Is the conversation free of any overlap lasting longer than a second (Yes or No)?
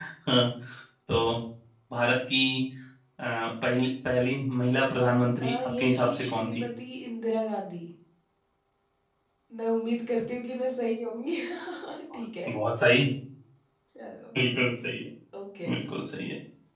No